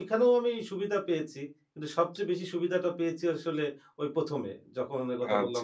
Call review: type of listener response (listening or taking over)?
taking over